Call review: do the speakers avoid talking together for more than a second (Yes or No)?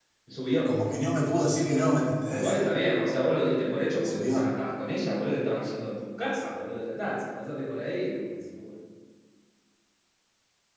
Yes